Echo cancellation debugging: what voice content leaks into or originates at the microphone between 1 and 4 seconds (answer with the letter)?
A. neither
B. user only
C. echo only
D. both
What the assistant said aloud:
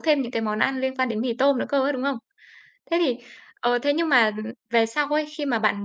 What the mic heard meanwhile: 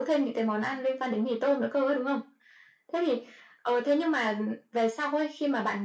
C